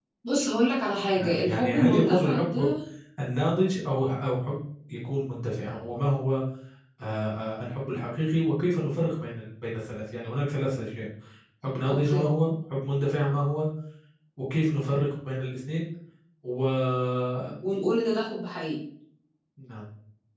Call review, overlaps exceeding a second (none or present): present